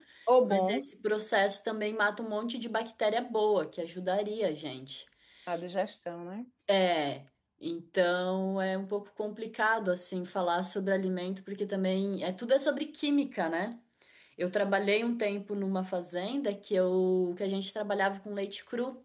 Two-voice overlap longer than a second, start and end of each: none

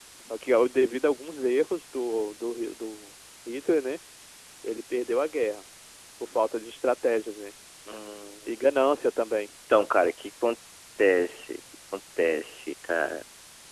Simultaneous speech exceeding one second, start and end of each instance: none

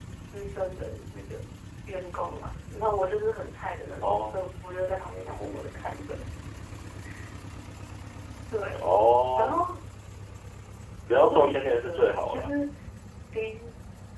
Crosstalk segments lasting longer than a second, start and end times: 11.3-12.5

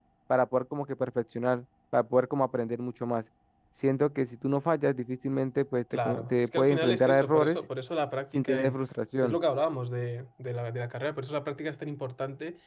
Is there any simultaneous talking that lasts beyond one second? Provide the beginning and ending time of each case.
6.0-7.6

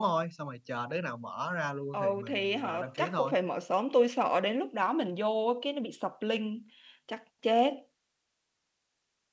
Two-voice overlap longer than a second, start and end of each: 1.9-3.3

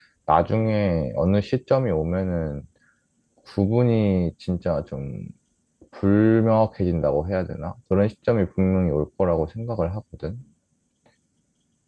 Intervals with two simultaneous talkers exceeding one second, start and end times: none

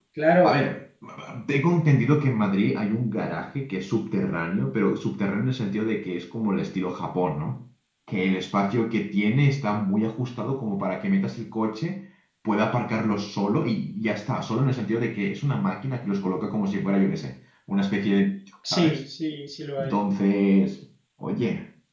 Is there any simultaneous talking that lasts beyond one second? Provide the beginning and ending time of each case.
none

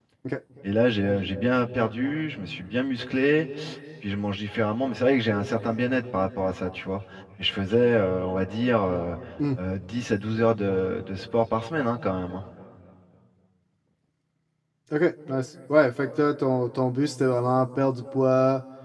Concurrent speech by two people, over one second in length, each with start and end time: none

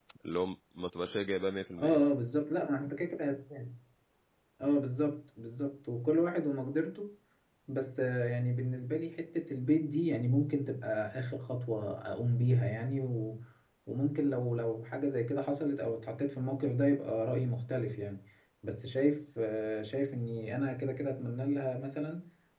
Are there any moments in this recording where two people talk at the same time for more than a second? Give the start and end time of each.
none

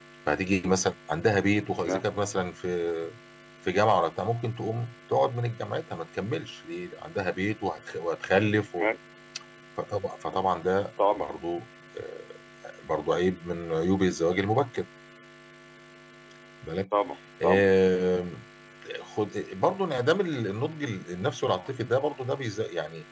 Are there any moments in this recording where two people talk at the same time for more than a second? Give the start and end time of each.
none

